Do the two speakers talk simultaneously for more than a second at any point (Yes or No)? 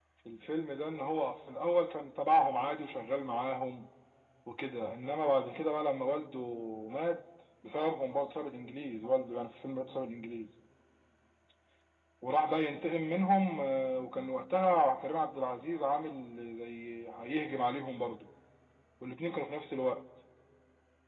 No